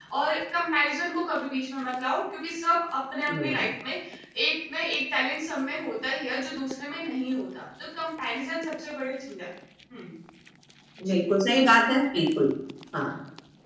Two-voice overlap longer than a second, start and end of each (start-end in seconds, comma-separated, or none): none